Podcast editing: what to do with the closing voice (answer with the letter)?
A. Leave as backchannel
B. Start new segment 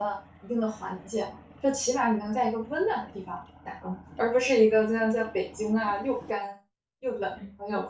B